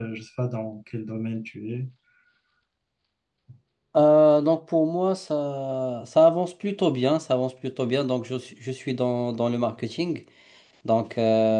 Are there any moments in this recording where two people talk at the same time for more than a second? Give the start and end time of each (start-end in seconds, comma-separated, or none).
none